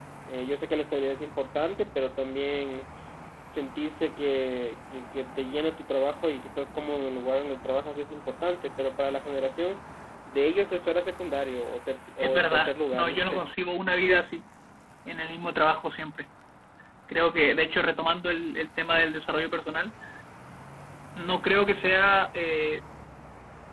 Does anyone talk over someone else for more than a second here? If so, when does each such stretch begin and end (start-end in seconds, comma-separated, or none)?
12.2-13.4